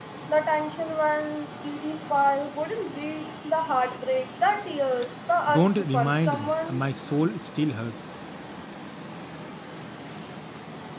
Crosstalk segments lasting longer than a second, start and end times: 5.5-6.9

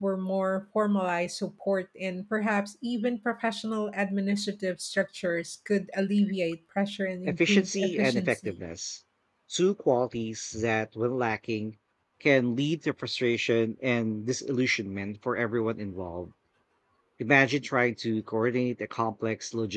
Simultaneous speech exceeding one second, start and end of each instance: 7.2-8.6

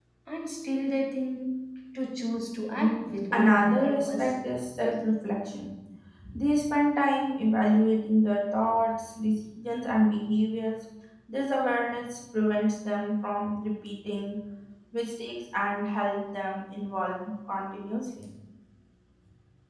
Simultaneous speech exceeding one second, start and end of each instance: 2.8-4.3

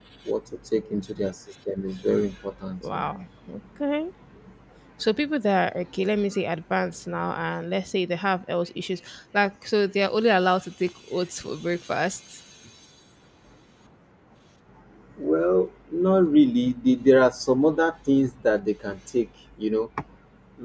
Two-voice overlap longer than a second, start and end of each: none

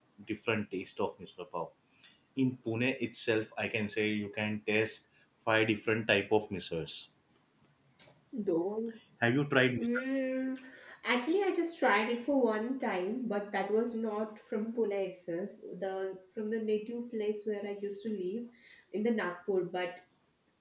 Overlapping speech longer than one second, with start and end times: none

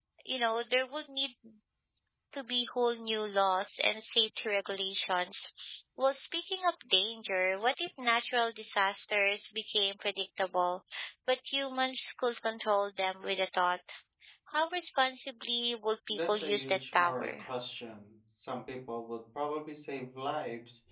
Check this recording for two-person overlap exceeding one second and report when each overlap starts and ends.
16.1-17.5

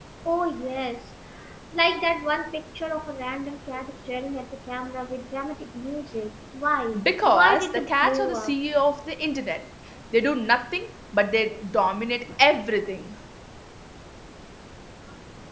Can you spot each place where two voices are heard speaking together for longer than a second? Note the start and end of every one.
7.0-8.6

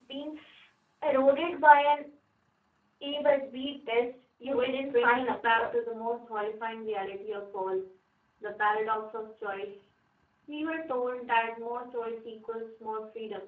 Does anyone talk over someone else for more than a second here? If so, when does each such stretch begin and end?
4.4-5.7

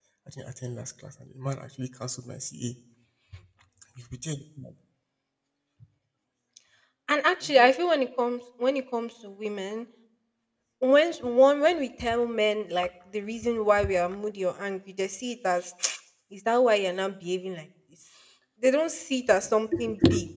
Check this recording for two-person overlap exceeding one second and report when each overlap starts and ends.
none

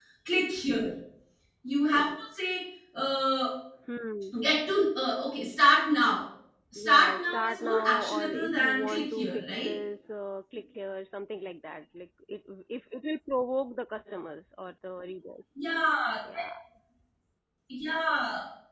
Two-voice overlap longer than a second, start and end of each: 6.8-9.7

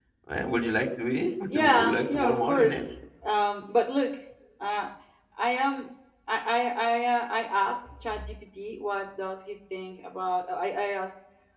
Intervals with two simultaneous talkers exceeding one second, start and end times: 1.5-2.9

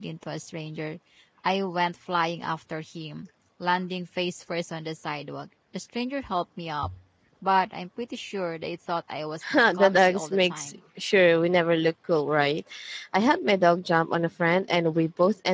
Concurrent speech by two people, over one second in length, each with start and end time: 9.5-10.8

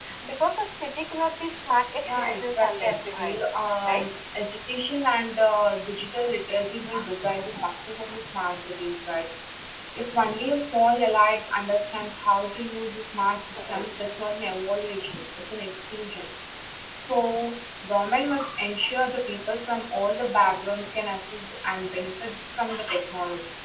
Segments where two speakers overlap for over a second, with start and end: 2.0-3.4

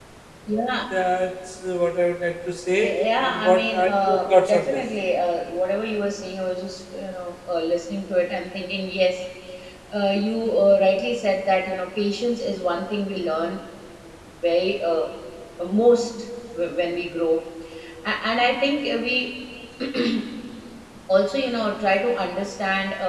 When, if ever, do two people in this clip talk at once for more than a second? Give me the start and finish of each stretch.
3.2-4.8

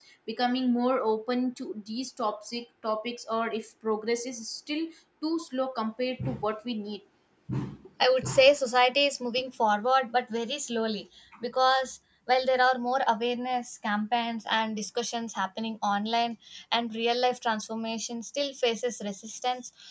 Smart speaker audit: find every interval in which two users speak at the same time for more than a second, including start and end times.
none

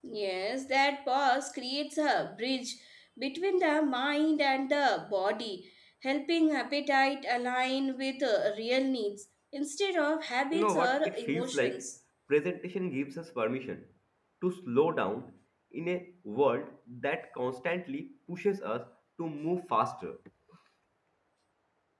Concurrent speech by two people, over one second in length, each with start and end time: 10.5-11.9

